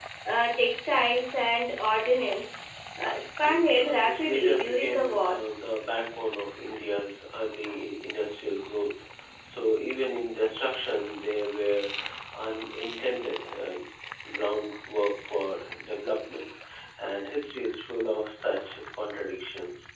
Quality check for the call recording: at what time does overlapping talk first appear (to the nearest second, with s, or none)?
3 s